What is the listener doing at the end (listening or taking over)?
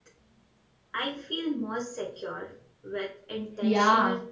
taking over